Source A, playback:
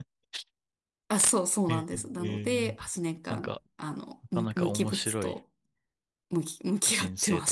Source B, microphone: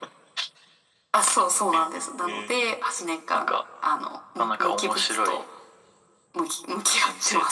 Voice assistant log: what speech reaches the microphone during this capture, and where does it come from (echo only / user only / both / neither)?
echo only